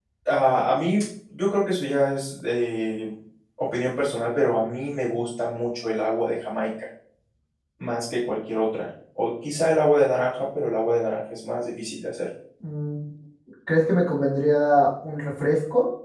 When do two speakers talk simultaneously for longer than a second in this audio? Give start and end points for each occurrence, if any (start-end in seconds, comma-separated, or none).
none